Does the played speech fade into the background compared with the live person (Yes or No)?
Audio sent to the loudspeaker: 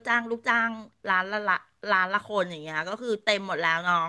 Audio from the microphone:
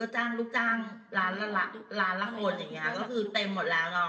No